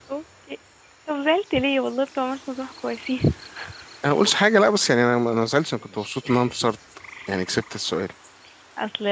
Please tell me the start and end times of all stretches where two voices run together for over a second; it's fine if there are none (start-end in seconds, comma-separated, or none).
none